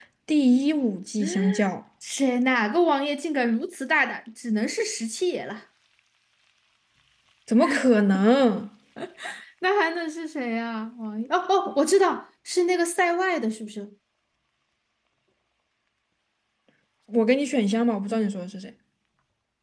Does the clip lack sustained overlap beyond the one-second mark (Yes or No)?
Yes